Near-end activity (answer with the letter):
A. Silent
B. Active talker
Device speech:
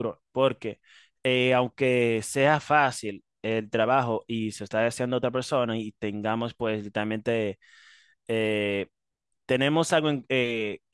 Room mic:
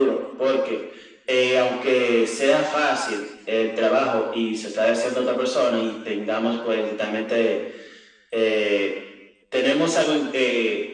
A